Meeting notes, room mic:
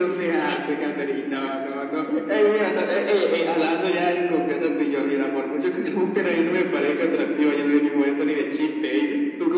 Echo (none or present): present